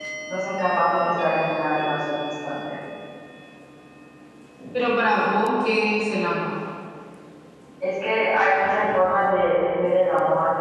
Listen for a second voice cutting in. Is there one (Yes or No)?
No